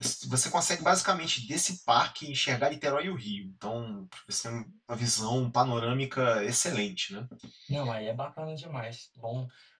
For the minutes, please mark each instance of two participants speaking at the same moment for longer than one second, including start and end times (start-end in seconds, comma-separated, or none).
none